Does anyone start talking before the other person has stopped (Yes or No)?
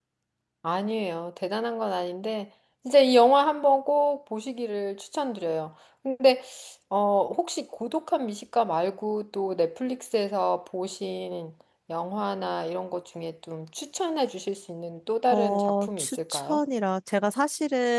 Yes